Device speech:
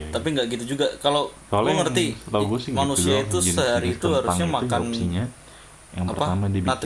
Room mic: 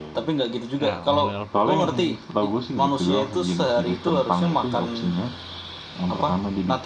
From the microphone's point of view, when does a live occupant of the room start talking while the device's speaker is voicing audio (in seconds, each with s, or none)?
0.8 s